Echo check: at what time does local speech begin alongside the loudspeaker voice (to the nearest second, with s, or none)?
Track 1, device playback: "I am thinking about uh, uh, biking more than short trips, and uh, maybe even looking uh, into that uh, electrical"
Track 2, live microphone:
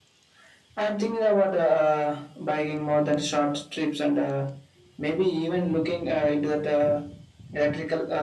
none